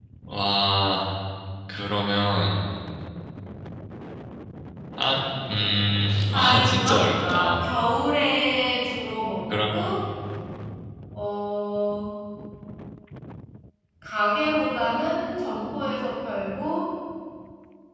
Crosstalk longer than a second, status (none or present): present